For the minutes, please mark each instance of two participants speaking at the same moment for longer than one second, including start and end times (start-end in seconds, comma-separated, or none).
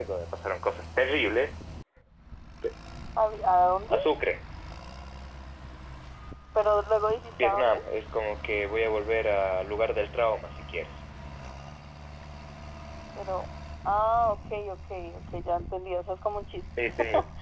none